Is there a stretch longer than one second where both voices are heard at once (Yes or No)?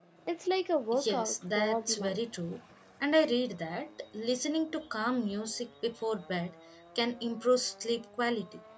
Yes